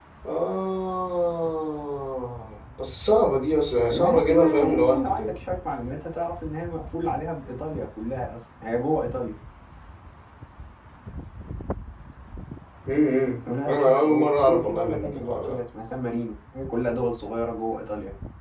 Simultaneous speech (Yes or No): Yes